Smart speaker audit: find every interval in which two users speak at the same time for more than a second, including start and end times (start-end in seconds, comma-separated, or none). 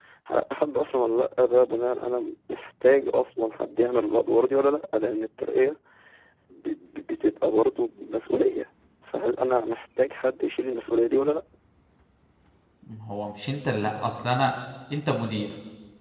none